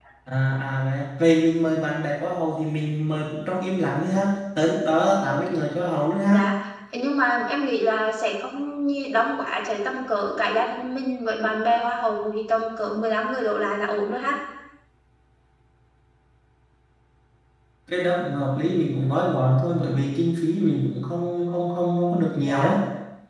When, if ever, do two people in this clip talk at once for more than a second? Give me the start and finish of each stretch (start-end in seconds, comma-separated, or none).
none